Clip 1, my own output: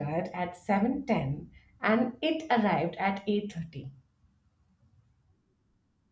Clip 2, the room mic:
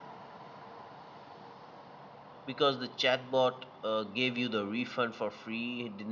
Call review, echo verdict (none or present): none